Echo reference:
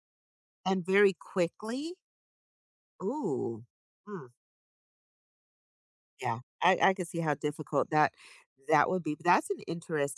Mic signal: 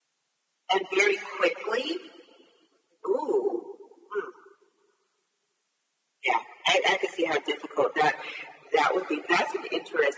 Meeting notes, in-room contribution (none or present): none